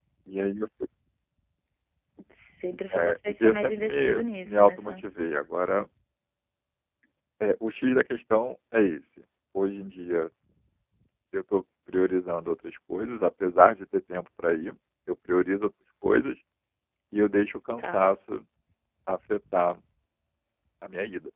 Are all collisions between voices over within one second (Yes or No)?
No